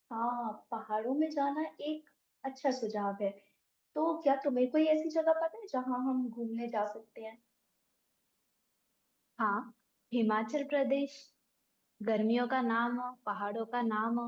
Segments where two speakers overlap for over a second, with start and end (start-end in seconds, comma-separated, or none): none